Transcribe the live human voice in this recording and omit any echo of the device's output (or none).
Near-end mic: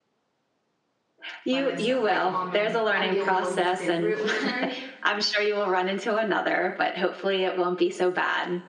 by myself like, on my I'm the only one who's been through it with her,